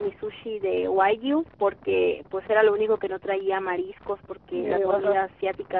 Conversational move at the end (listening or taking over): listening